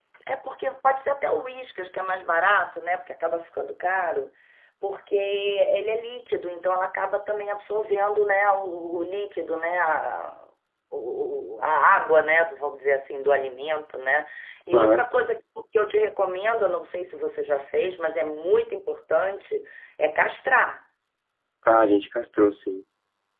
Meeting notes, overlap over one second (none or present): none